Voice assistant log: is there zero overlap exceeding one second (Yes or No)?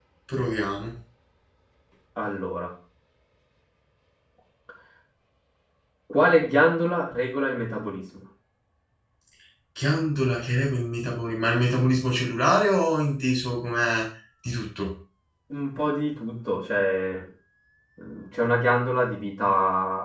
Yes